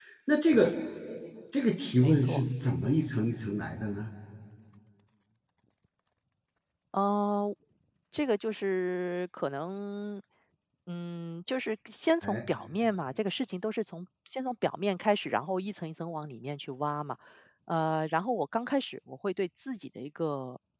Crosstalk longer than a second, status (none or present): none